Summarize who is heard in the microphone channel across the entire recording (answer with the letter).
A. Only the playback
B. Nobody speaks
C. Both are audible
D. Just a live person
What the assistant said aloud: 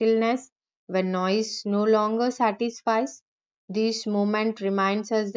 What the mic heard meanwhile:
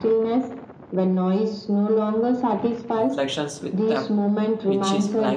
C